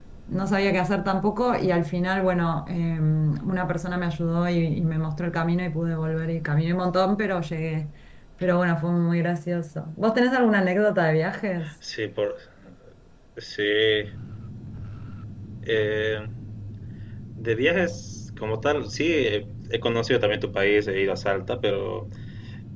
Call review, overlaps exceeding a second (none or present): none